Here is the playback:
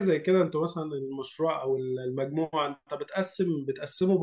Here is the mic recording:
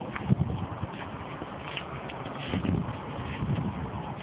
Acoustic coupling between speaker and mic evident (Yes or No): No